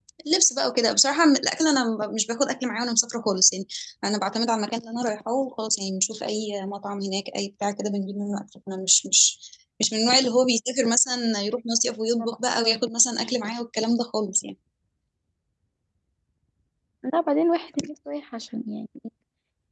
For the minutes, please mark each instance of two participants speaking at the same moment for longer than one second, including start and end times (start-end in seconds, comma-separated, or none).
none